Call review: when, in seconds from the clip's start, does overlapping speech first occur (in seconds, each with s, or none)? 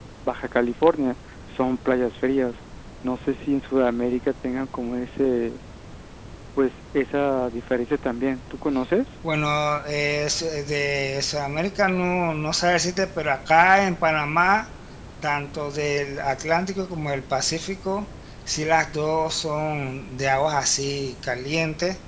none